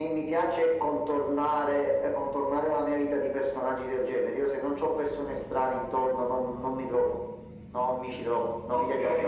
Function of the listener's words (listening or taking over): taking over